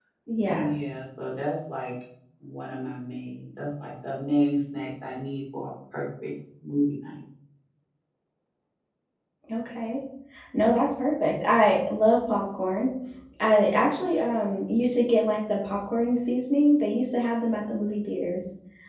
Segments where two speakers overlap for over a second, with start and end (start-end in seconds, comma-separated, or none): none